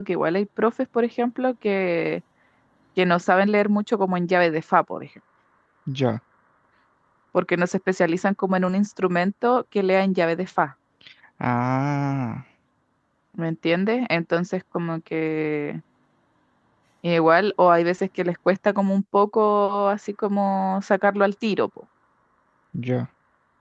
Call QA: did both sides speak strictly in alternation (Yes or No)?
Yes